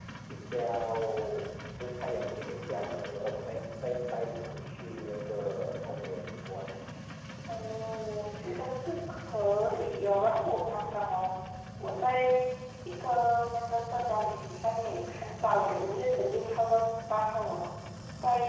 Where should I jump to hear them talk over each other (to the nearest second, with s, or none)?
none